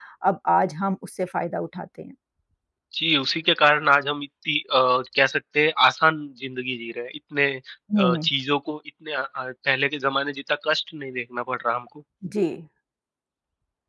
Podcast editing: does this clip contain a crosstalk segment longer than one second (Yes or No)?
No